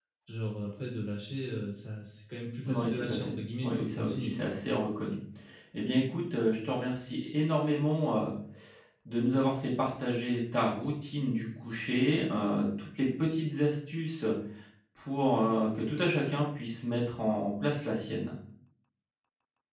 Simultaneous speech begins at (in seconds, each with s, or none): 2.6 s